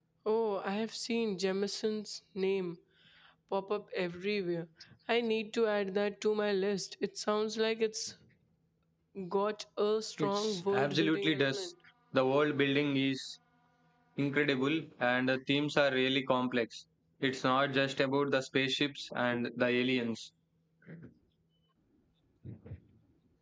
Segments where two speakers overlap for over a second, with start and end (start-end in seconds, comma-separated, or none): 10.2-11.7